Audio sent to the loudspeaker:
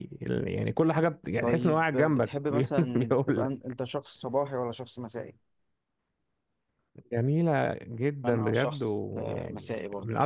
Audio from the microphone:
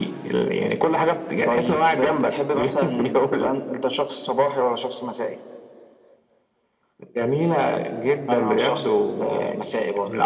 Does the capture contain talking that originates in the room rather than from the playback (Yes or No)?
No